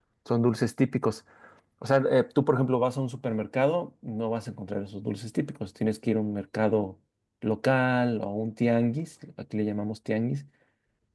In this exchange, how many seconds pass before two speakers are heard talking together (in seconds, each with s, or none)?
none